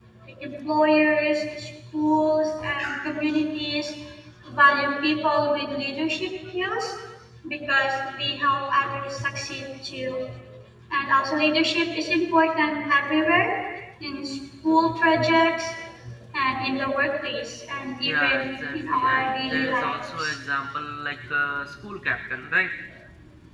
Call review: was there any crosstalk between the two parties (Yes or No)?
Yes